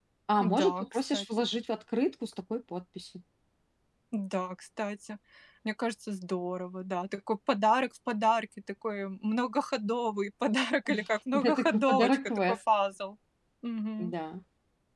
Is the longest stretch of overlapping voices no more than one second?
No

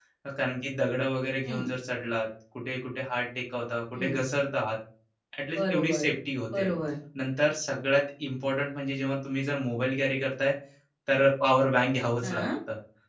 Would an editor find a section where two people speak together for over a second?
No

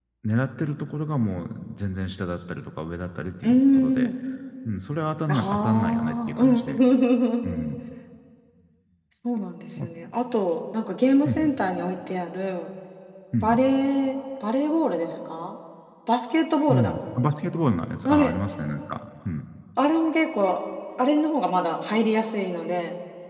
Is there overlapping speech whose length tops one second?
Yes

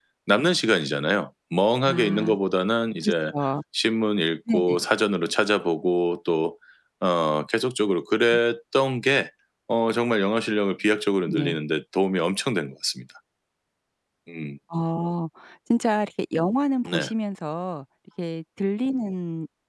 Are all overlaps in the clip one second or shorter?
Yes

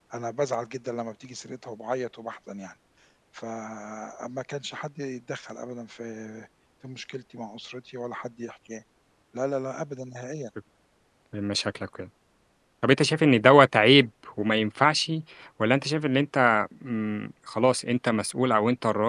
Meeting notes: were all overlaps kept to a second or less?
Yes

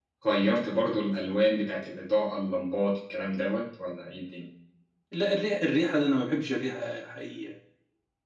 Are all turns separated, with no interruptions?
Yes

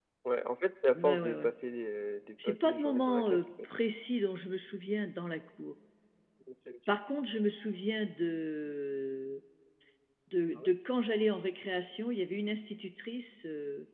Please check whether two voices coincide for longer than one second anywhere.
Yes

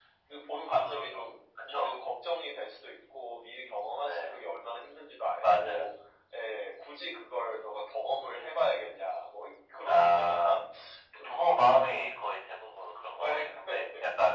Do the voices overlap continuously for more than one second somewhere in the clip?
Yes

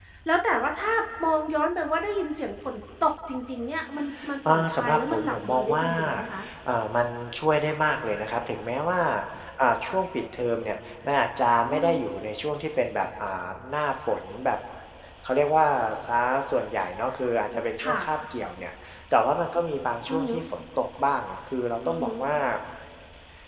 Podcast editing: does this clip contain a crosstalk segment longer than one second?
Yes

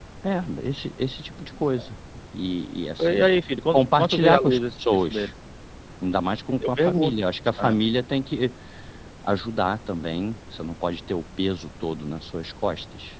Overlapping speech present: Yes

